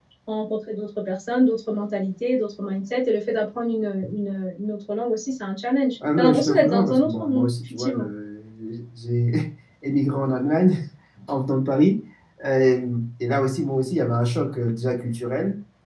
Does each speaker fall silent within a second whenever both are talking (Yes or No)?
No